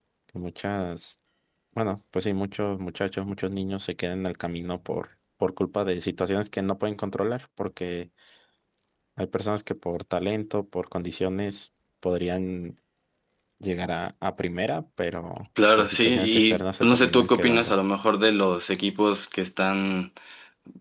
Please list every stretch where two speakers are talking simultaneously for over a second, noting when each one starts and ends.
15.8-17.7

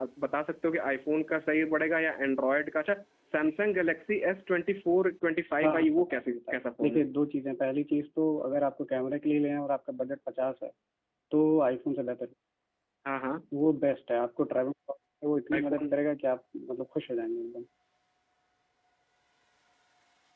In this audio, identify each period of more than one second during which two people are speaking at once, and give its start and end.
5.6-7.0

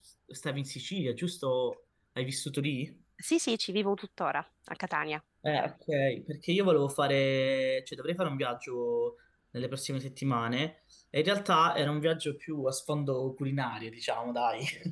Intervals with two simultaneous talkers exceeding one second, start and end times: none

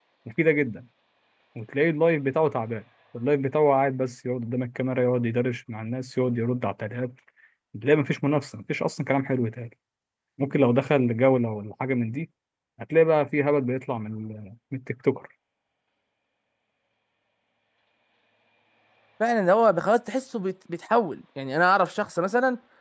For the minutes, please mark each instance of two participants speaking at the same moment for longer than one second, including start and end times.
none

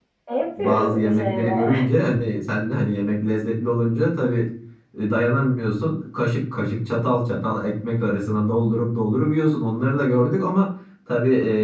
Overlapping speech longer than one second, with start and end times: 0.6-1.9

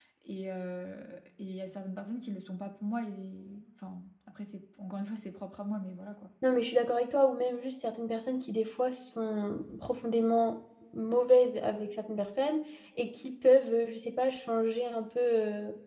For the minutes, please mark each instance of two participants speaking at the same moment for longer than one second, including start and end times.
none

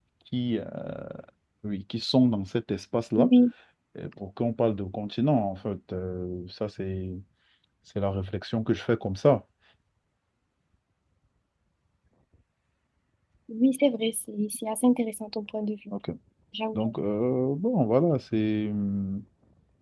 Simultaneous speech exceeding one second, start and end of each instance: none

